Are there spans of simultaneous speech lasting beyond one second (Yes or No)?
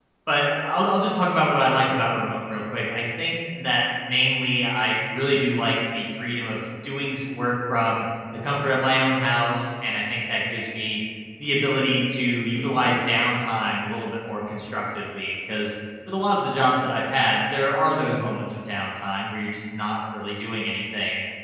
No